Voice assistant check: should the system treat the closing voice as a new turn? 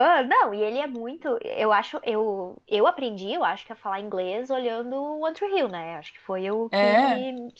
No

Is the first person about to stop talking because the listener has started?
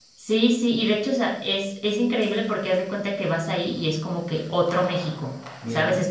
No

